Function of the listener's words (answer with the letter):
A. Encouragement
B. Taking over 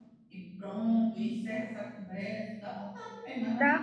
B